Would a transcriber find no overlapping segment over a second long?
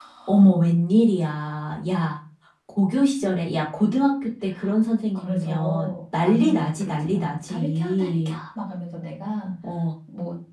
No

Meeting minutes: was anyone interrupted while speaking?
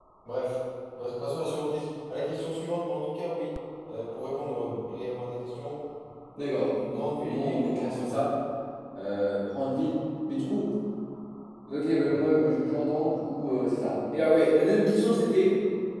Yes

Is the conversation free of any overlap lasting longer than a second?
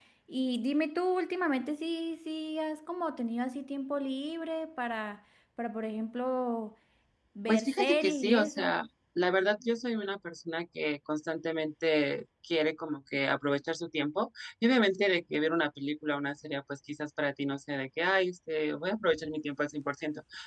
No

